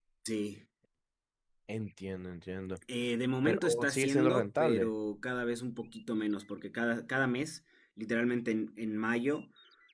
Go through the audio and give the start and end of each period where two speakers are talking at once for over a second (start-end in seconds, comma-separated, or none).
3.4-4.9